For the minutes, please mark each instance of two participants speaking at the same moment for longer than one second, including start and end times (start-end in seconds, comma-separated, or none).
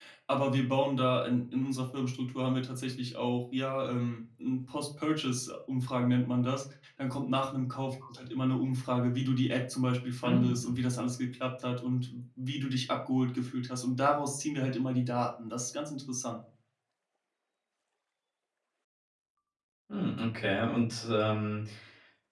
none